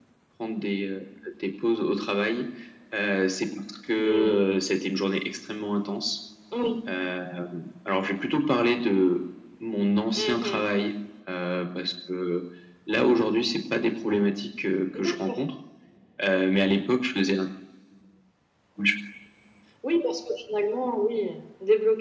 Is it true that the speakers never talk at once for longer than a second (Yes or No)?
Yes